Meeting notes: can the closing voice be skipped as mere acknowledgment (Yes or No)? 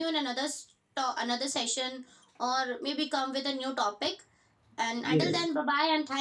Yes